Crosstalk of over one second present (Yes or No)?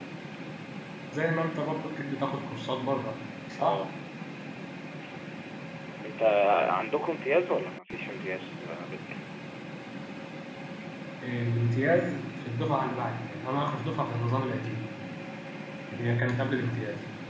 No